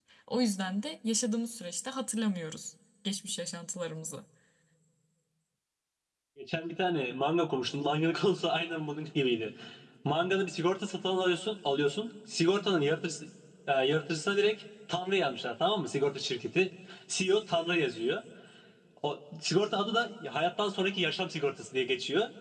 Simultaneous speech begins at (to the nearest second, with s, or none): none